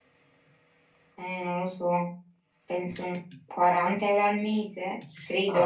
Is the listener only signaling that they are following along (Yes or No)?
No